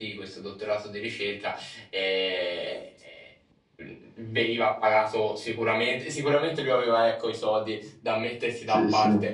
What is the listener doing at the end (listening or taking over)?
listening